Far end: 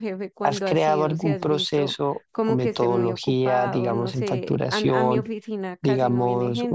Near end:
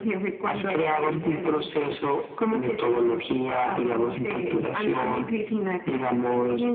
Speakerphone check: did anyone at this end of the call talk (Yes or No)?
No